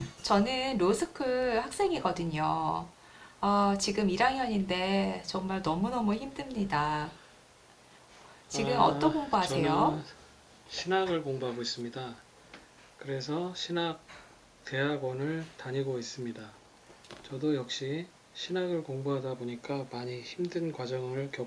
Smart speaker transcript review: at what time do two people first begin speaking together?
9 s

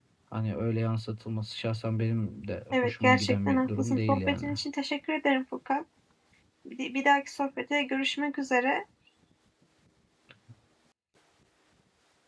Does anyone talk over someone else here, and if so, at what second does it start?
3 s

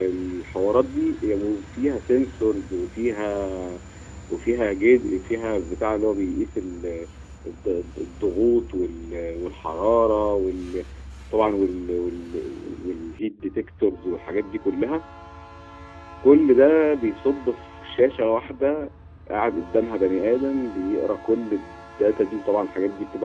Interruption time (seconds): none

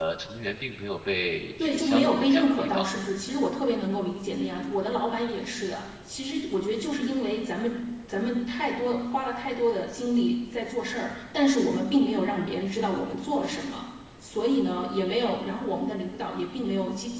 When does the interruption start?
2 s

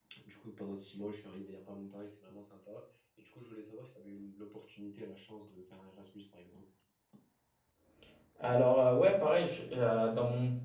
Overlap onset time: none

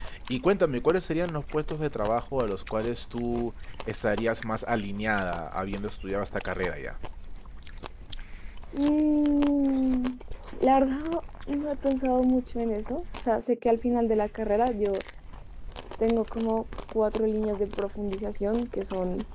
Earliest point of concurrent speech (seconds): none

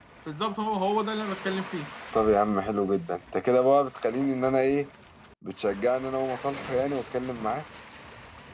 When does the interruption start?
none

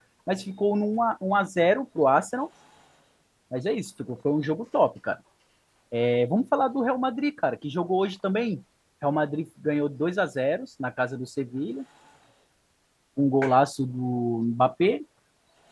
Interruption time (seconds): none

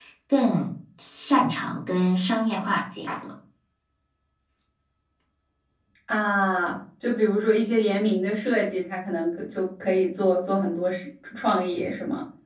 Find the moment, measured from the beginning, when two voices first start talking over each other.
none

